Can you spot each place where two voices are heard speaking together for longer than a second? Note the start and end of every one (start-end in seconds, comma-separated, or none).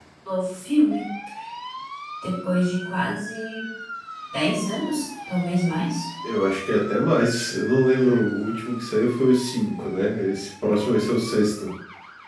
none